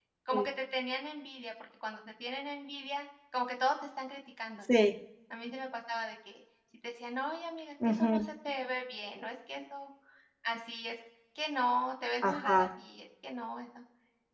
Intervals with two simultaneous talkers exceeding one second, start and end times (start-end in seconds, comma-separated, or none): none